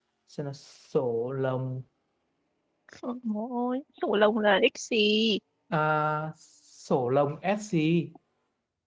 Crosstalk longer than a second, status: none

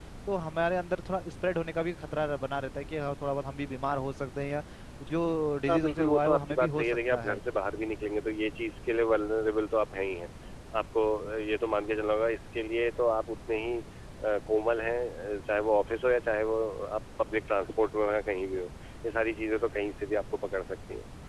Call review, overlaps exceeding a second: present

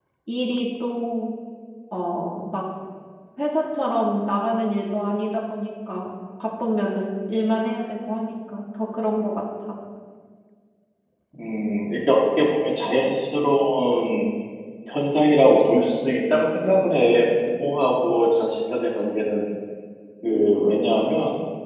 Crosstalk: none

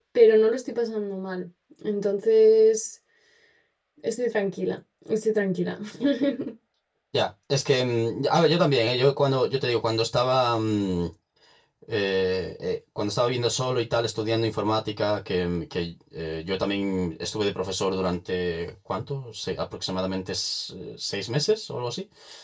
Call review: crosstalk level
none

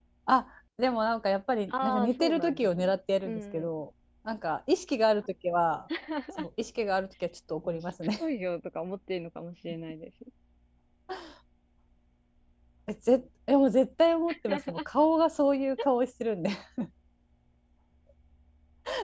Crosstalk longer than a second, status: present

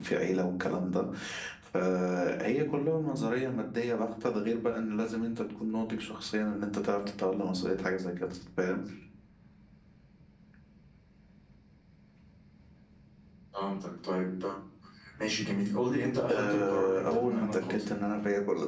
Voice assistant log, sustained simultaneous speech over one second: present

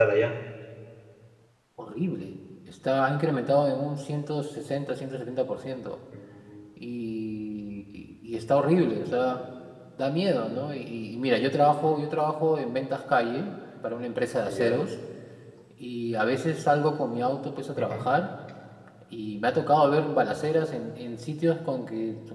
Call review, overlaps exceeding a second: none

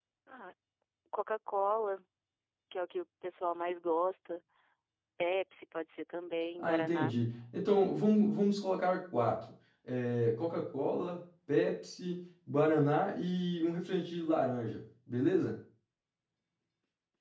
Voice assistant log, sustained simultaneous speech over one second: none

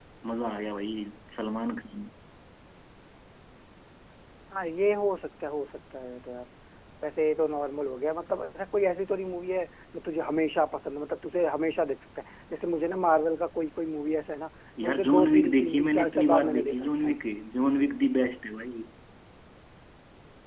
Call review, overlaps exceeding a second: present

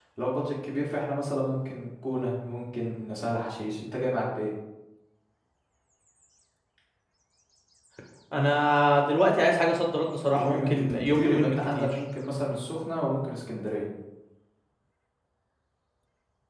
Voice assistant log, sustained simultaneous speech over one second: present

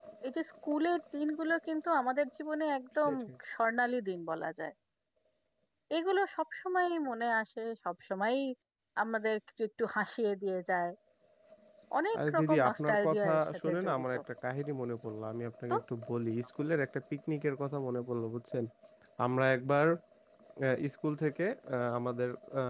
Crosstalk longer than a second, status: present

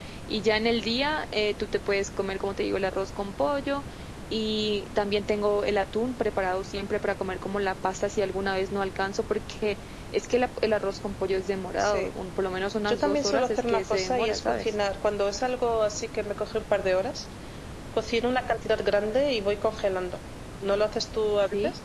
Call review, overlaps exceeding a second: present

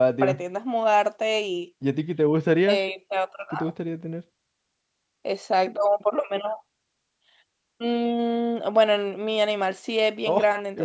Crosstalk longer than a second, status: none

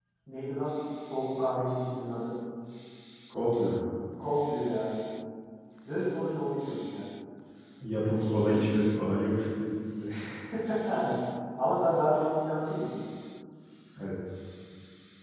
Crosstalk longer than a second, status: none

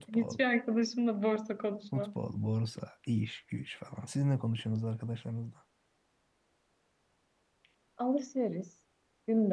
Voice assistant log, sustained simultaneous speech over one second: none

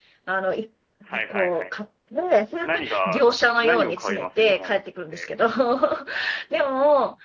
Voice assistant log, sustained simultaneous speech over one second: present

